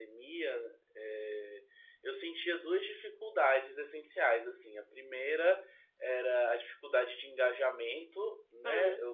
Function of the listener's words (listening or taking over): listening